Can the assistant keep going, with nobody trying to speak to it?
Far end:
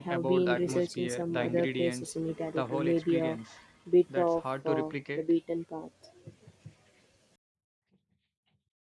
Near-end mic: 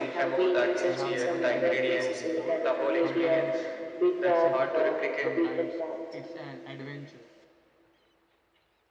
No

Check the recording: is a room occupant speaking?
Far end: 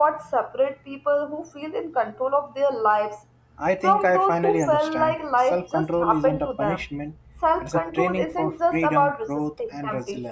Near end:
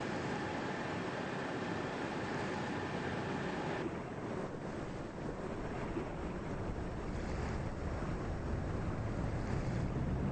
No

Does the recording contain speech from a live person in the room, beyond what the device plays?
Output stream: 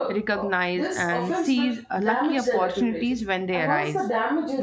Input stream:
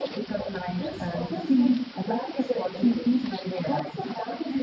No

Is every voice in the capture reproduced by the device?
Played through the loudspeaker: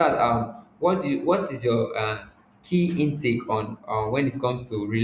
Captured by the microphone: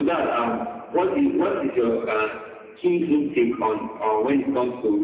Yes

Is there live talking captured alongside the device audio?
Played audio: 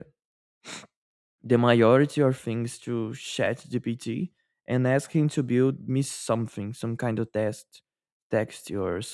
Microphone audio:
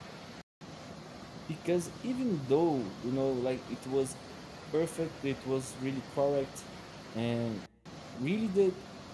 Yes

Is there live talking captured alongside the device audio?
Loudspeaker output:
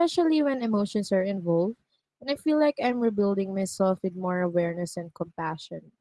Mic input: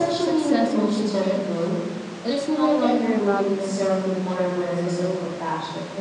Yes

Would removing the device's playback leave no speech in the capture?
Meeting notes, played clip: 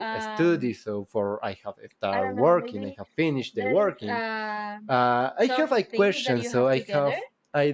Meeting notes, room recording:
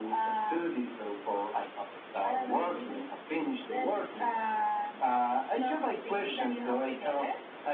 Yes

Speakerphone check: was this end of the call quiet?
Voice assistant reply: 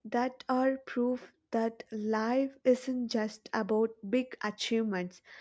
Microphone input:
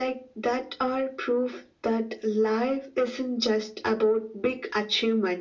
Yes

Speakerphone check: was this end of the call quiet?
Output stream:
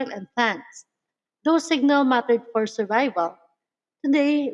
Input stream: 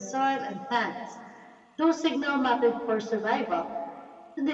Yes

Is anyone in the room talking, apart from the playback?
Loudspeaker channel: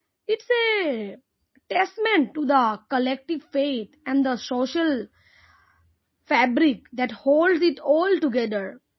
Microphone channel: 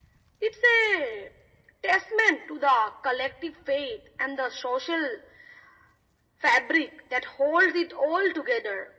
No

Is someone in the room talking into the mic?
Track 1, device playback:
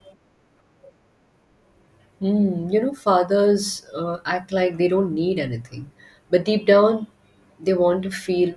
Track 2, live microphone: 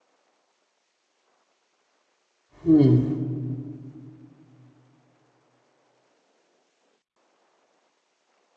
Yes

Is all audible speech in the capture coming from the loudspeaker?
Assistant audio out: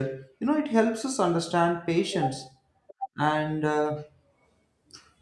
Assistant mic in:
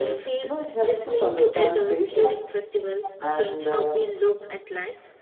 No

